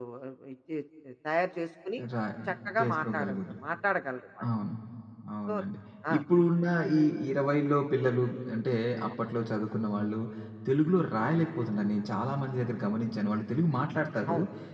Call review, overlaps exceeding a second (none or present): none